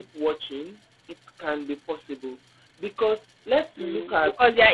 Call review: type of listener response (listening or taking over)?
taking over